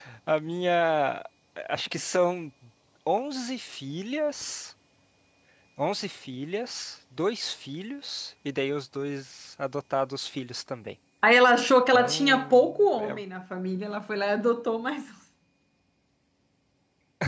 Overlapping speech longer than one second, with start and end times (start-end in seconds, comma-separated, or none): 11.9-13.2